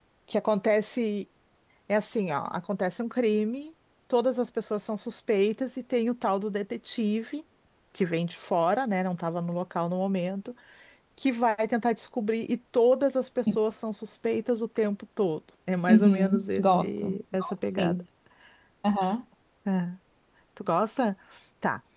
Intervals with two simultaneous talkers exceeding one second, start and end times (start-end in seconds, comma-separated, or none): 15.9-18.0